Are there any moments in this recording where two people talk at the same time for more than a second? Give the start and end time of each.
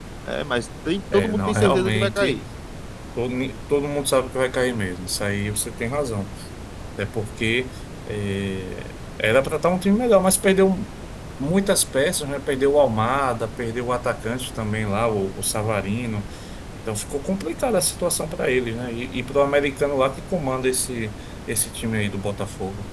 1.1-2.4

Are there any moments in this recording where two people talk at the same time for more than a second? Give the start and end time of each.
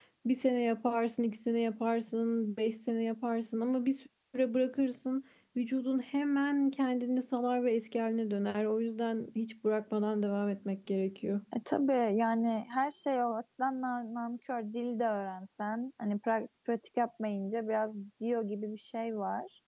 none

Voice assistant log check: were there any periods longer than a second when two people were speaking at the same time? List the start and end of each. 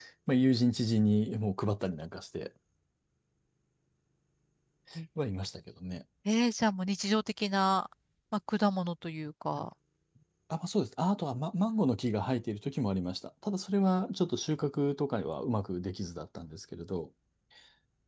none

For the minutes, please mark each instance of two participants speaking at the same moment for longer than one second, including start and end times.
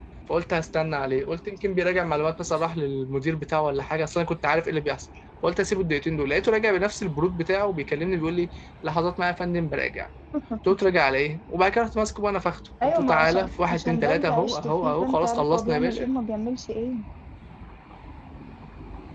12.8-16.1

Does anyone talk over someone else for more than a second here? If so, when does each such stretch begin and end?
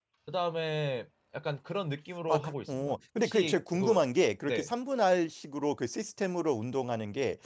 2.3-4.0

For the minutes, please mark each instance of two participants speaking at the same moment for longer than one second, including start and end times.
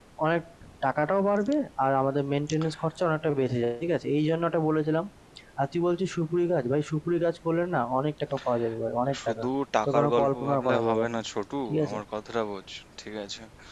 9.8-11.2

